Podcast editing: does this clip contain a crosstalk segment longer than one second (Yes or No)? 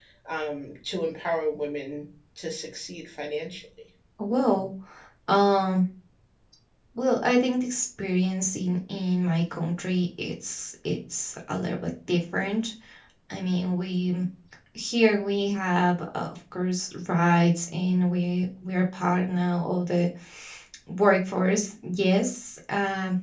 No